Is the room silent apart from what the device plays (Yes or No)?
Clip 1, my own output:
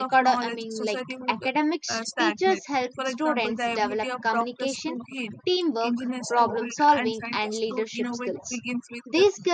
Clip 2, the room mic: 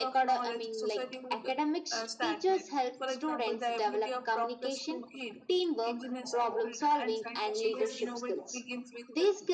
No